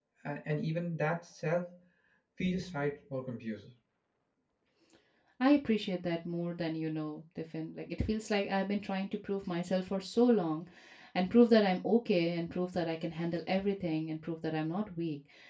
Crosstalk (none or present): none